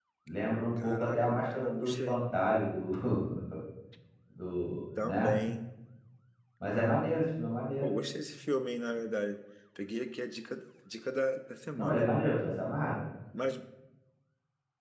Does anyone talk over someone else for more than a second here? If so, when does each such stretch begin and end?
0.8-2.2

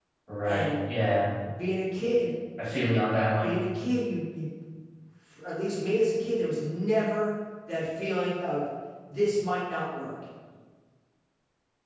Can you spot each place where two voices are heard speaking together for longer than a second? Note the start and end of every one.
none

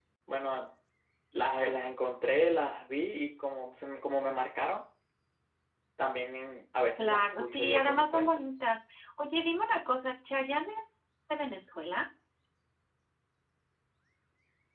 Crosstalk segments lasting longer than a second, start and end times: 7.0-8.4

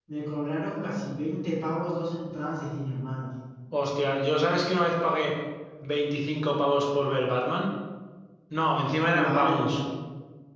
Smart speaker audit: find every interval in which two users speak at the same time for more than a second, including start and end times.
none

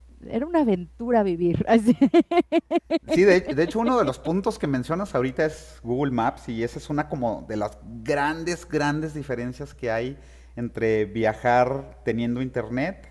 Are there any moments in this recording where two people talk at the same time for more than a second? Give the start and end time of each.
none

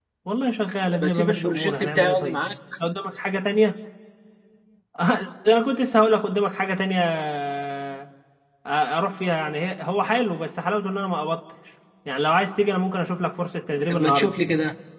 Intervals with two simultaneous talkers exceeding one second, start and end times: 0.9-2.4

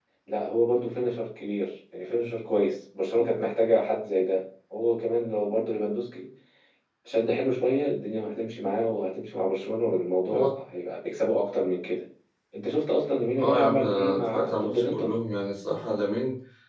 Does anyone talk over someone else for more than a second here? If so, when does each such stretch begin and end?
13.4-15.1

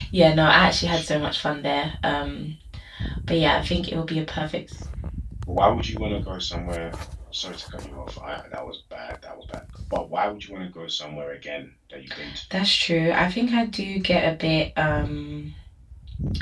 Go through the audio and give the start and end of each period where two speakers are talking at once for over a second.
none

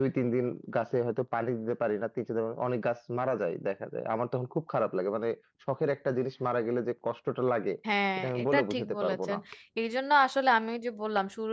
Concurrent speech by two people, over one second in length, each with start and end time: 8.2-9.4

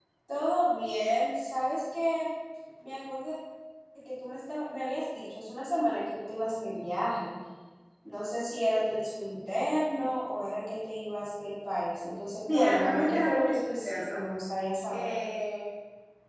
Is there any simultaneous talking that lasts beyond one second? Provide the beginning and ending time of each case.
12.5-14.2

